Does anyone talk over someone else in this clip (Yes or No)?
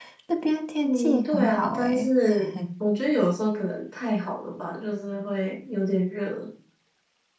Yes